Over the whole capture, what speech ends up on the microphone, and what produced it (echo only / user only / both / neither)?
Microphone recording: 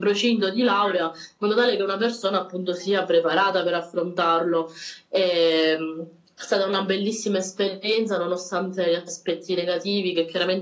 echo only